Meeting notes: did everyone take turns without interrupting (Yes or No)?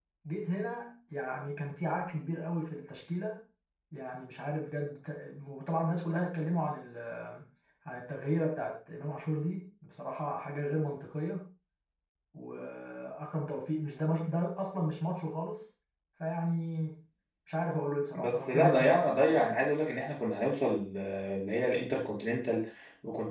No